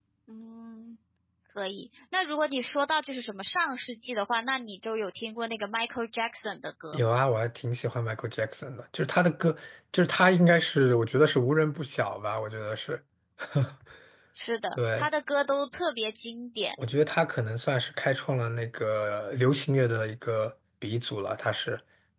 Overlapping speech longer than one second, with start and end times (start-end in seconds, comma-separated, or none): none